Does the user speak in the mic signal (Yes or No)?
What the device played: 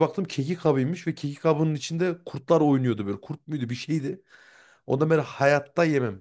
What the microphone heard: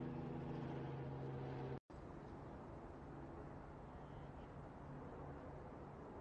No